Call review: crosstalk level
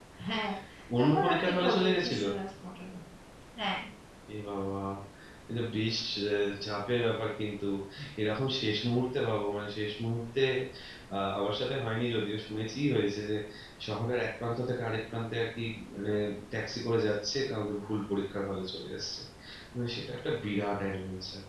present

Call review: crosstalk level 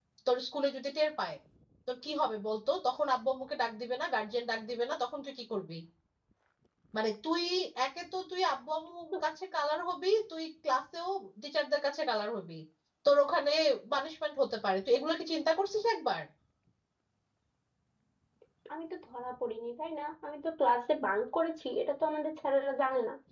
none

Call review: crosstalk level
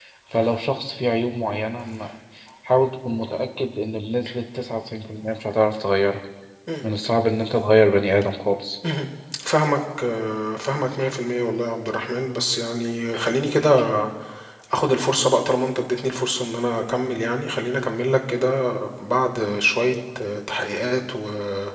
none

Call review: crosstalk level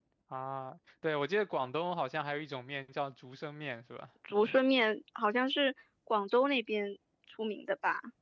none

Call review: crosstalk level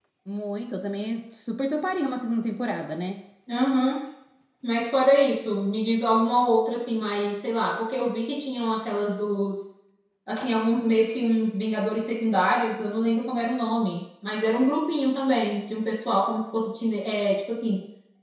none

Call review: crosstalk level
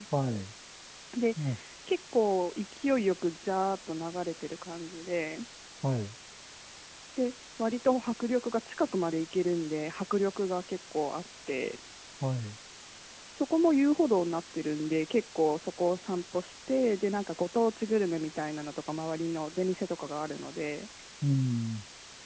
none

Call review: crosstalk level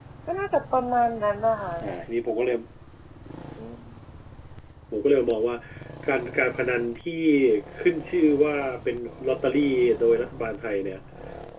none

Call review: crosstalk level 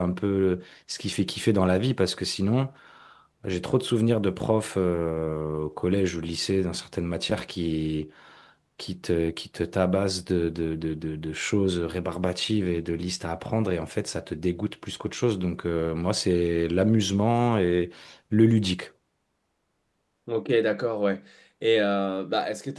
none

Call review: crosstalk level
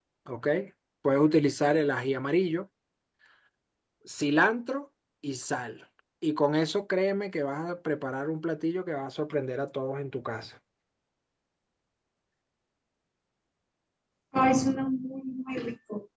none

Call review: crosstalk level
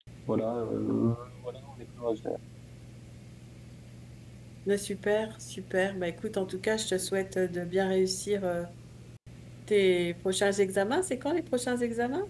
none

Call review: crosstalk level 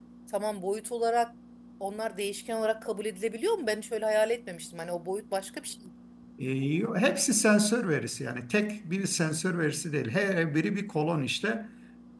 none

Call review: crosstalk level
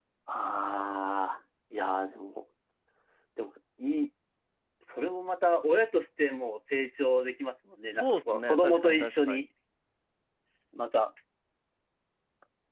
present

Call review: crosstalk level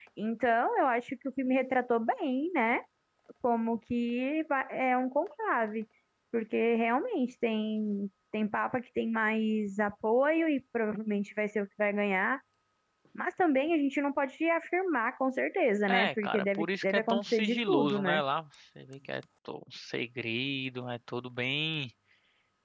present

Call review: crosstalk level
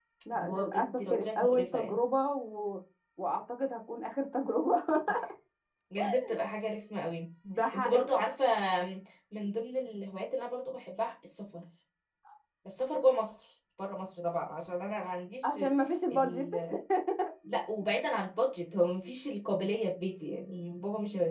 present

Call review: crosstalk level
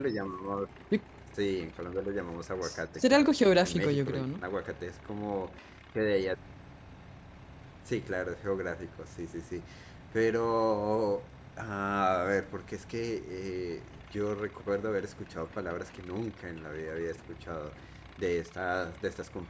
present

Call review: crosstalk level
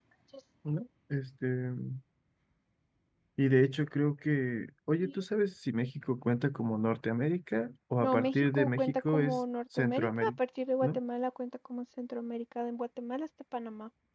present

